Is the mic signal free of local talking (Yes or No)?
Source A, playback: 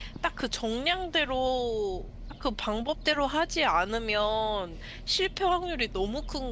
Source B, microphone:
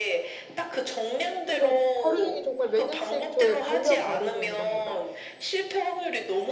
No